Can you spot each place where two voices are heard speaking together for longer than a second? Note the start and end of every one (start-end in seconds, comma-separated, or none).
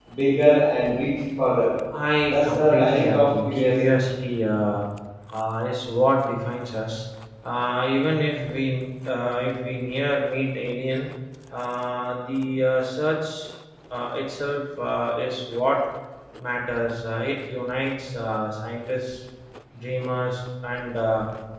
2.3-3.8